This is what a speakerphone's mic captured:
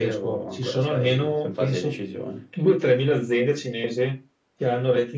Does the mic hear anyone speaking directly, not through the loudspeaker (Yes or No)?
No